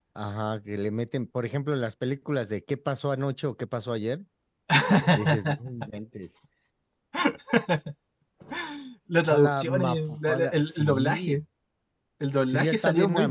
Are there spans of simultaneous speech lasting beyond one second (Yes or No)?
Yes